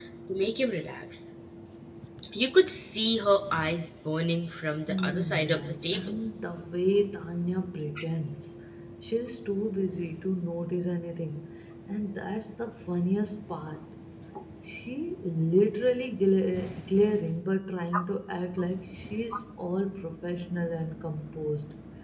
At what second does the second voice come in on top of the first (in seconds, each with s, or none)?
4.9 s